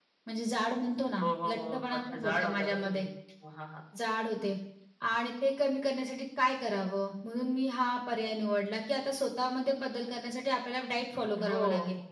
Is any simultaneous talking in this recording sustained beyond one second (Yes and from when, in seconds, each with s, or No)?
Yes, from 1.2 s